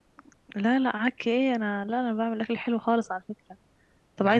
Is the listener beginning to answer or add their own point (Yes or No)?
No